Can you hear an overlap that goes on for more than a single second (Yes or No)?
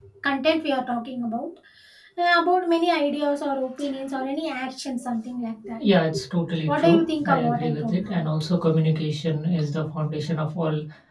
Yes